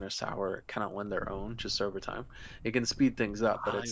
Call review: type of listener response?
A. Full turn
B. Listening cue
B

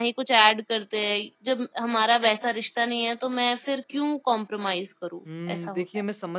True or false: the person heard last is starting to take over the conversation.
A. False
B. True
B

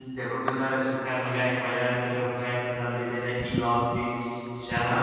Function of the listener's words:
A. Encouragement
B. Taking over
B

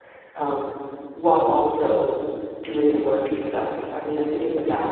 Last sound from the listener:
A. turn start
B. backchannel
B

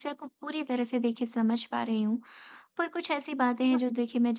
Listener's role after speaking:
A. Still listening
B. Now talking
A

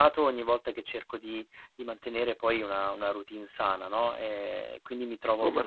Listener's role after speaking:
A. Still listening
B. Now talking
A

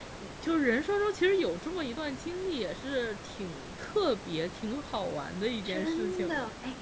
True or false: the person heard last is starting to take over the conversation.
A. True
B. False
A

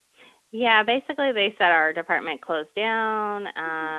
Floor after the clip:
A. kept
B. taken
A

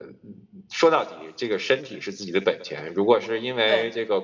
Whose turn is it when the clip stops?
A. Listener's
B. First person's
B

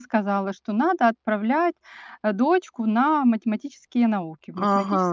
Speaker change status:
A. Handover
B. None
A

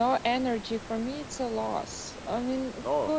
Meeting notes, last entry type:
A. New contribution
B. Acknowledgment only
B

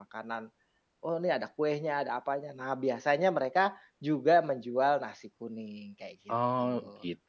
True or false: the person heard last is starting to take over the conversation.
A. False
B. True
B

